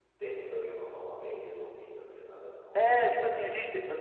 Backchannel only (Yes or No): No